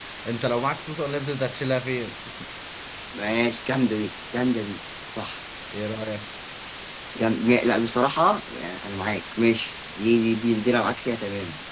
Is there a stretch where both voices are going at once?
No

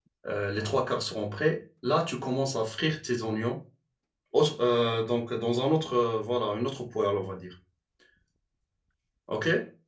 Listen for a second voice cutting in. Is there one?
No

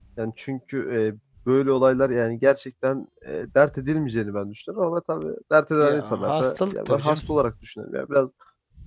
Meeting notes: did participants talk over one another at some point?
Yes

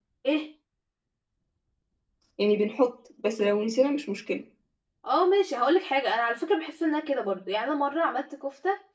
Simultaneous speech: No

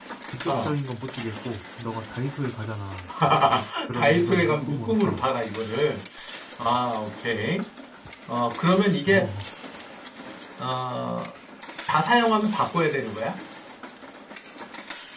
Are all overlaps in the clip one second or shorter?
No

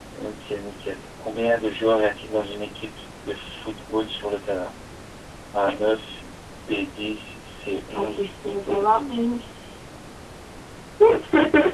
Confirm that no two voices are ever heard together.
No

